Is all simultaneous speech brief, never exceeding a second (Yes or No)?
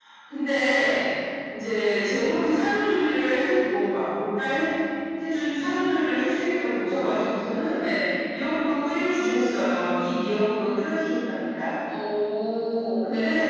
Yes